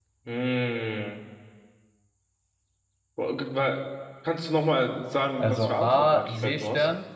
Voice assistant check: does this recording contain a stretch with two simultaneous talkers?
Yes, from 5.4 s

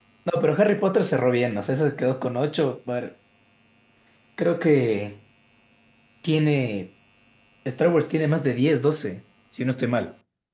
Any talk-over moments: No

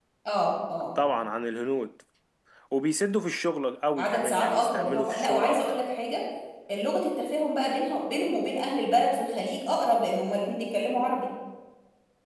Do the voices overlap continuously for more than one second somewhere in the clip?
Yes, from 4.0 s

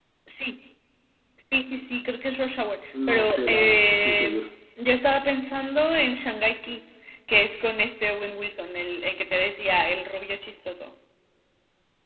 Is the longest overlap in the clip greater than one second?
Yes, from 2.9 s

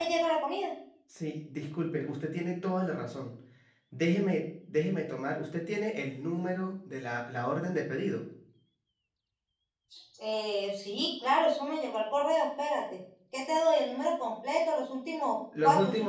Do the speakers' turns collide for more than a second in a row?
No

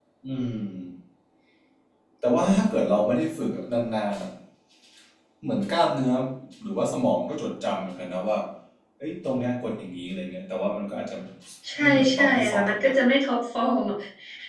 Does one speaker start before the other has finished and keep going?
Yes, from 11.8 s

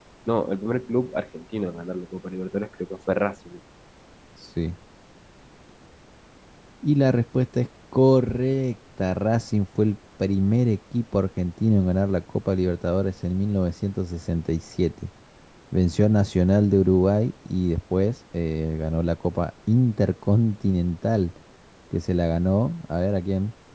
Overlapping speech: No

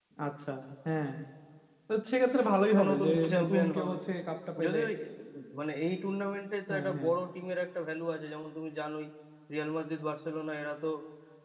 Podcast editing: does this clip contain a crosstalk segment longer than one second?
Yes, from 2.7 s

